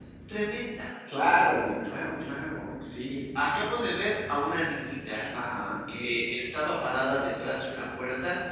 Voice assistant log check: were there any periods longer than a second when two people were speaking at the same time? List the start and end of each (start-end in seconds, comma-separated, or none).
none